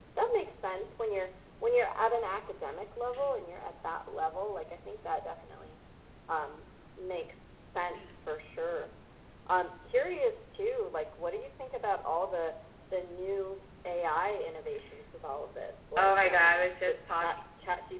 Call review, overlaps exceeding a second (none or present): present